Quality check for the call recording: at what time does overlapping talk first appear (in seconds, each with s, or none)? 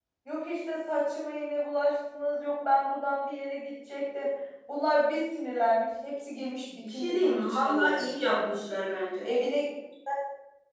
6.8 s